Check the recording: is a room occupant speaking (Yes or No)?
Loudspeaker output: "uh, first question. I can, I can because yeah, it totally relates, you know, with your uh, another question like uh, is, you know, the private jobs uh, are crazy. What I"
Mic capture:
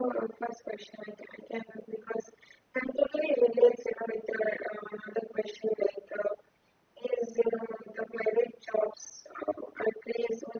No